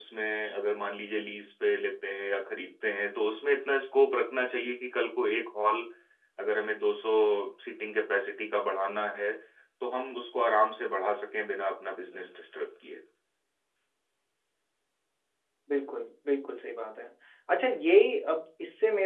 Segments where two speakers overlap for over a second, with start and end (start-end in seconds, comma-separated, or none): none